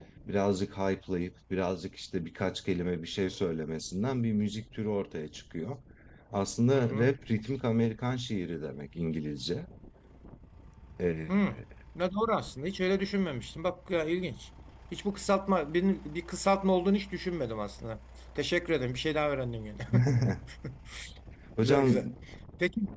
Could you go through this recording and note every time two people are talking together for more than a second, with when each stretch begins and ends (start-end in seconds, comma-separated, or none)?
none